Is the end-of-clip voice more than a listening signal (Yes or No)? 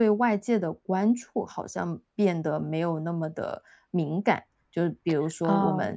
No